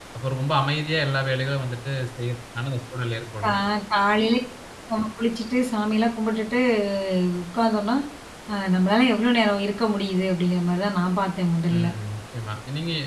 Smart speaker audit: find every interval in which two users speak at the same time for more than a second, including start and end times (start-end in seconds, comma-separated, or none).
none